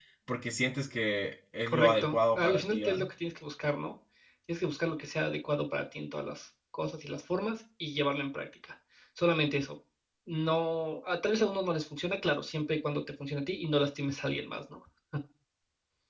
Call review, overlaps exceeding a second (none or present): present